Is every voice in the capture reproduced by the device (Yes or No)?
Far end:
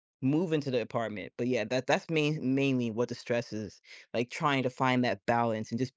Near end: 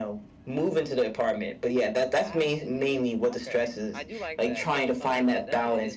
No